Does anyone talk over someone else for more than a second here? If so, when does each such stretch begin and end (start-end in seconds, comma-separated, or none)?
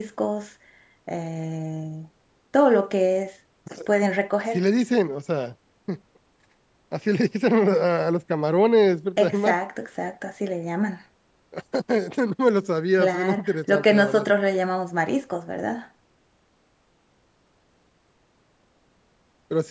13.0-14.2